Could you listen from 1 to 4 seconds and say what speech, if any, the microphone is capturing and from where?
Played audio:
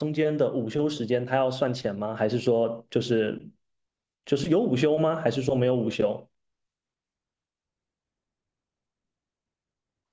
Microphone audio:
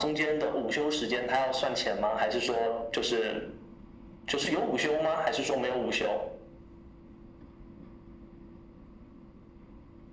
echo only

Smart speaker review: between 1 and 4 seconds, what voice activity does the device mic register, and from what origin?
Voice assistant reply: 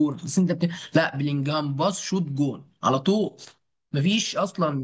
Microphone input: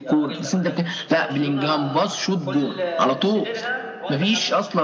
both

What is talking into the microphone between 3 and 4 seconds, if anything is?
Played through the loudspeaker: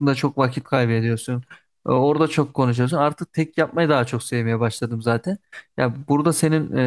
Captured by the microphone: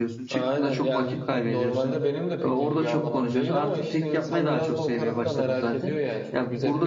both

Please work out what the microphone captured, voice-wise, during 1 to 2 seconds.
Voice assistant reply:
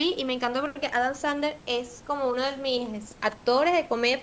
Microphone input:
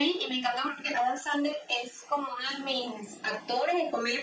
echo only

